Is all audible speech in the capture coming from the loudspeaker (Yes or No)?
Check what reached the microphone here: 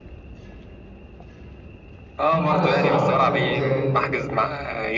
No